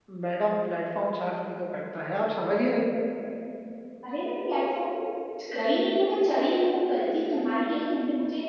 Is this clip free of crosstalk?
Yes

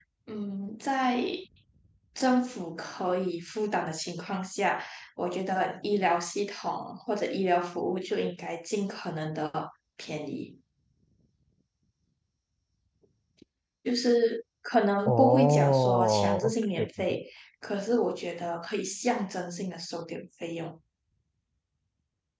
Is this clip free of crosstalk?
No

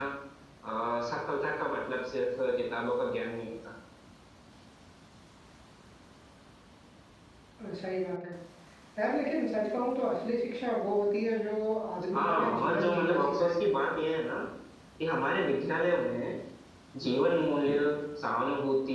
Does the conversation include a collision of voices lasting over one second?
Yes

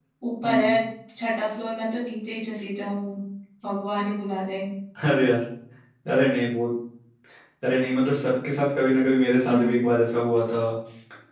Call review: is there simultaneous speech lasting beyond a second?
No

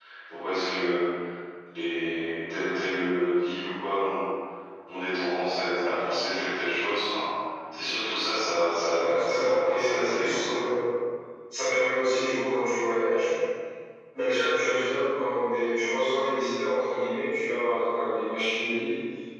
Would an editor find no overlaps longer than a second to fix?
No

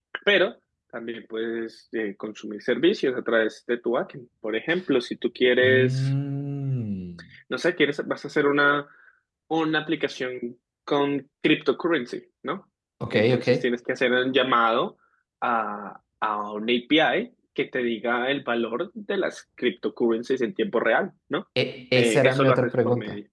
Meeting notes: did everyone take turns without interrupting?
No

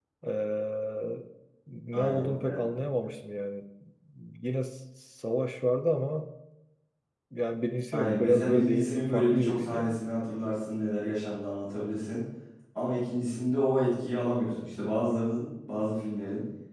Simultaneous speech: Yes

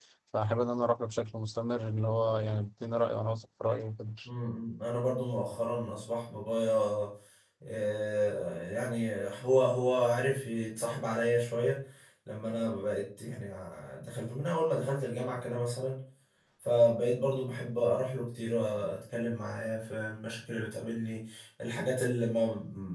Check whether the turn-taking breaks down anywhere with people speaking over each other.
No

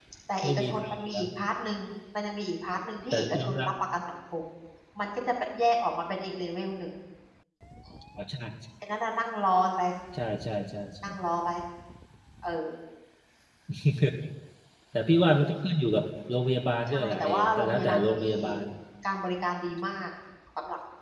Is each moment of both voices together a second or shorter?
No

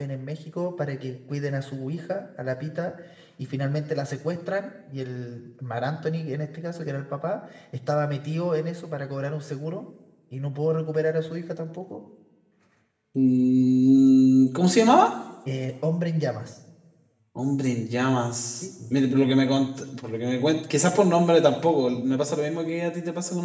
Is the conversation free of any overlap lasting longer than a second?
Yes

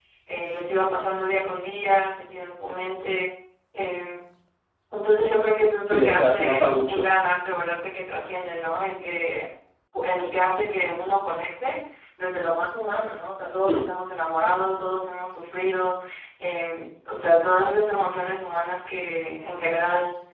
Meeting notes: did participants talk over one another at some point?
Yes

